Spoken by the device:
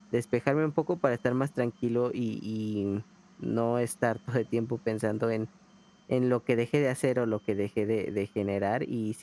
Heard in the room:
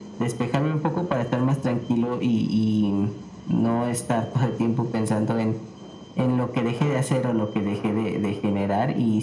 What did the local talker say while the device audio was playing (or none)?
none